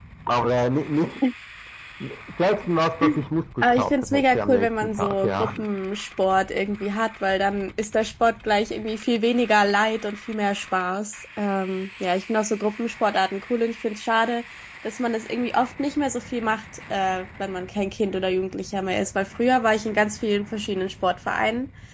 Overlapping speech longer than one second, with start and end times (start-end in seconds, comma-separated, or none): 3.6-5.7